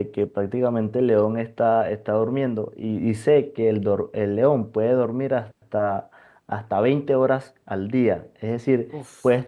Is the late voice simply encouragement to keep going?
Yes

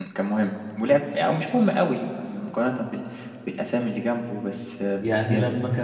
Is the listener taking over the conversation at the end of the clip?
Yes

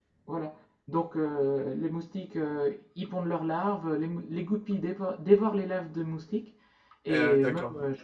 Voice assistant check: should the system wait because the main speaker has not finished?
Yes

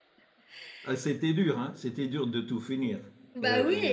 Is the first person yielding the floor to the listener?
Yes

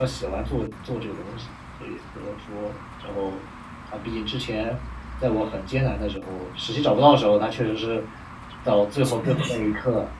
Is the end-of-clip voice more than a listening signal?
No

